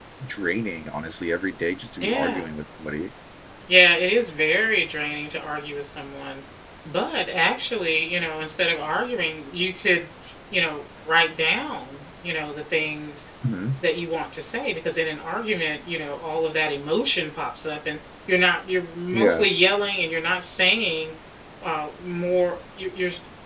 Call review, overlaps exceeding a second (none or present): none